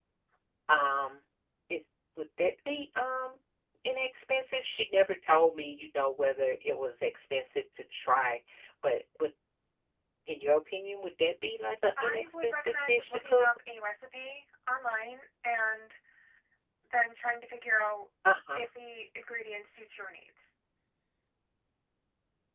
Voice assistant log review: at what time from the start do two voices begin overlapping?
12.0 s

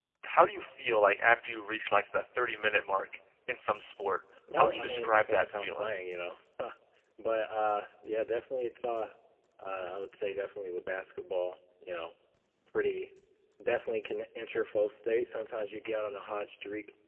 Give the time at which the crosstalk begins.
4.5 s

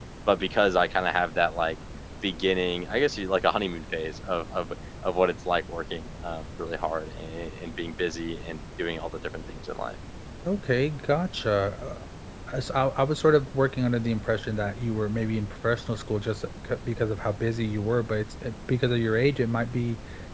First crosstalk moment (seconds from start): none

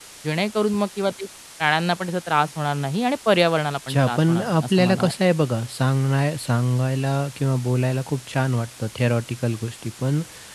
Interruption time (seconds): 3.9 s

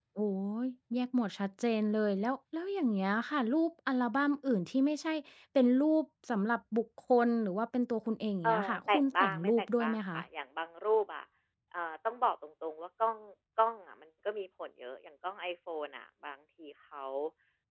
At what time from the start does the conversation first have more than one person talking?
8.4 s

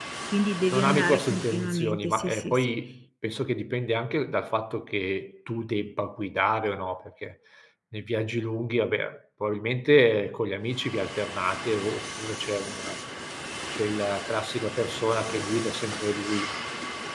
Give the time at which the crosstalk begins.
0.7 s

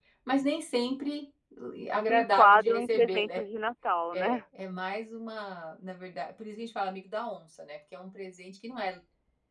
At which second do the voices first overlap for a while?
2.0 s

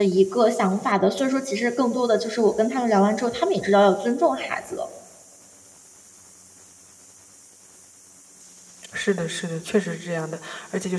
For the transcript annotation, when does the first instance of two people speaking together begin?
none

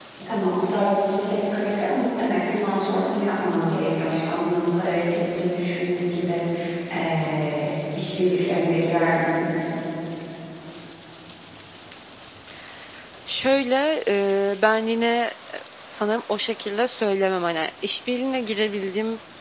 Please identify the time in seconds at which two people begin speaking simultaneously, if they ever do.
none

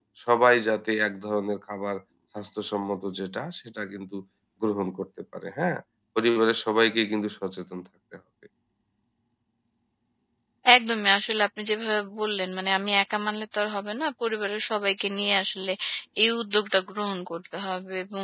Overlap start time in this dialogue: none

